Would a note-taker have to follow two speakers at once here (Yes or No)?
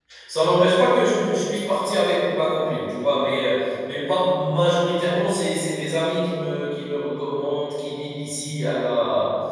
No